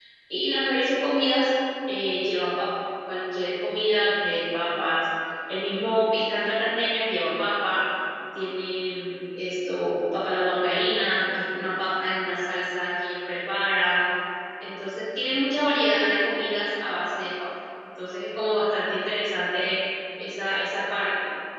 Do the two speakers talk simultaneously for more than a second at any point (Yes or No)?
No